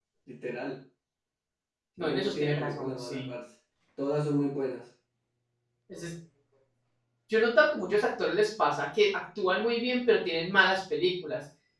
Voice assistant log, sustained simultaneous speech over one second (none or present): present